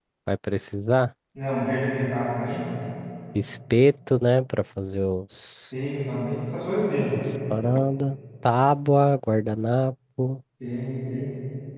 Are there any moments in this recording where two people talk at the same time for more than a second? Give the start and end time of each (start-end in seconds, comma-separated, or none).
none